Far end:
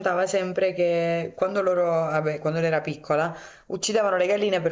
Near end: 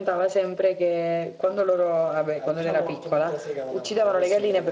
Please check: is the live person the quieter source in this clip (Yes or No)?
Yes